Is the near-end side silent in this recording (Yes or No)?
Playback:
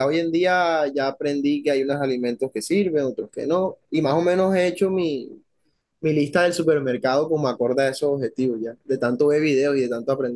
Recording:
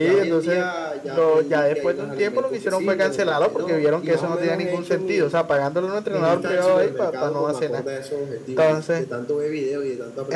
No